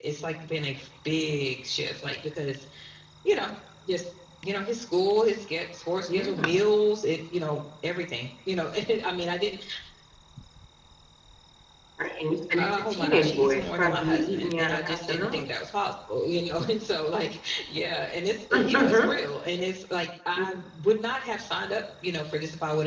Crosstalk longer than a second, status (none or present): present